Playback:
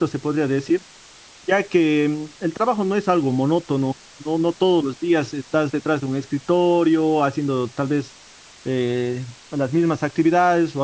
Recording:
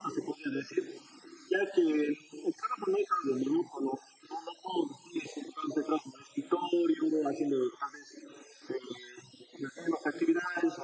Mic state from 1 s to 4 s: echo only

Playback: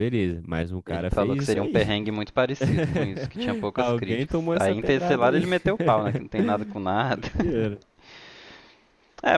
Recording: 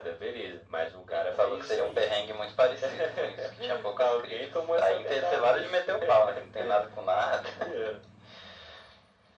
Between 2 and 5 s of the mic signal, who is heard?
echo only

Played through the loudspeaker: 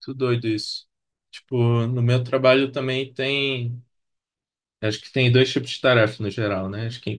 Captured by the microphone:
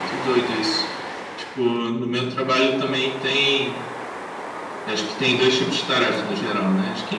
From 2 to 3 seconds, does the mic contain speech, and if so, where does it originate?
echo only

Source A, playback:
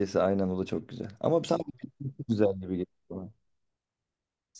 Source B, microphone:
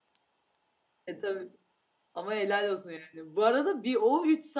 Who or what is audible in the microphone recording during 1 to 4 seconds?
user only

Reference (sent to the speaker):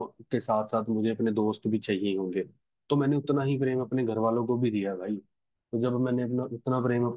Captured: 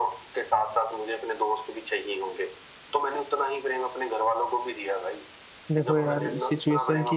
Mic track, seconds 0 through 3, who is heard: echo only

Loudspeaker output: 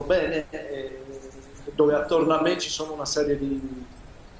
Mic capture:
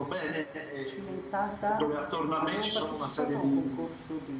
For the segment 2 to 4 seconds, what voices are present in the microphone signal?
both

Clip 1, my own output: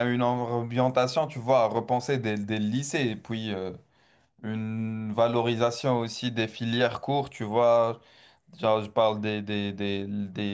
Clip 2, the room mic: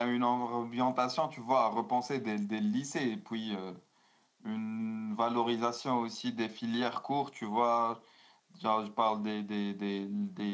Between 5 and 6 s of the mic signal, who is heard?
echo only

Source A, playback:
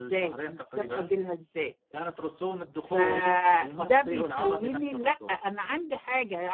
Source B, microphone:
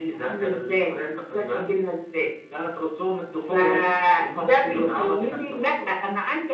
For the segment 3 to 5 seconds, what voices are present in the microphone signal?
echo only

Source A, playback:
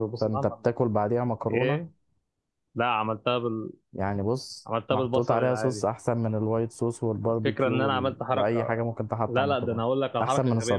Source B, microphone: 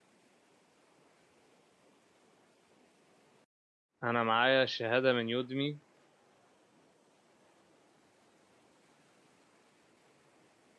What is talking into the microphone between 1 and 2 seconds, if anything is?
neither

